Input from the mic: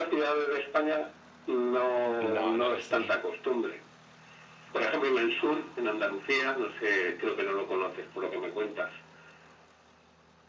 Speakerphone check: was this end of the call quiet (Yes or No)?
No